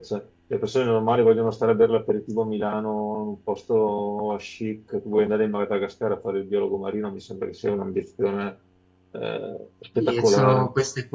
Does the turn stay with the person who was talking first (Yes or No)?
No